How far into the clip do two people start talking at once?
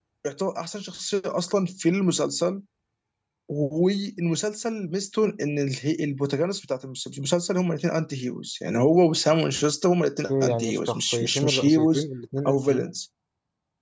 10.3 s

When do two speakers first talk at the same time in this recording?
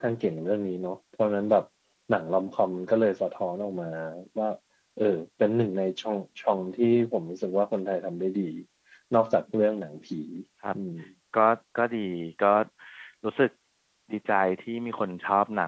none

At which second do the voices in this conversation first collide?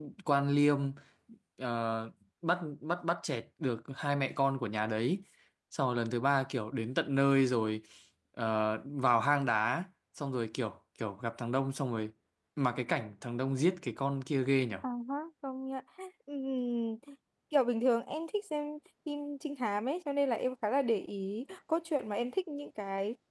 none

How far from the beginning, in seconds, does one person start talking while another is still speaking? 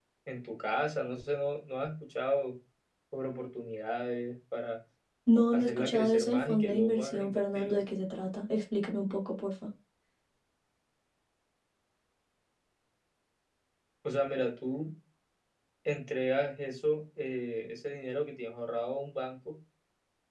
5.5 s

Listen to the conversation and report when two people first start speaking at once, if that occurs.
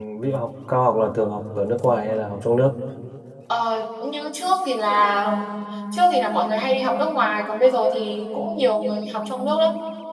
none

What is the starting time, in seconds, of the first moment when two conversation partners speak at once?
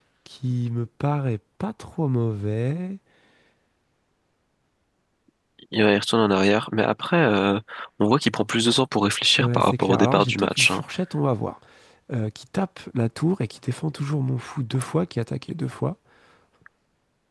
9.4 s

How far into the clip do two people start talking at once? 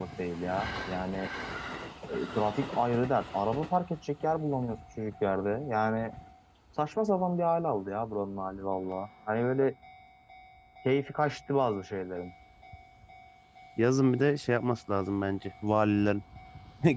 none

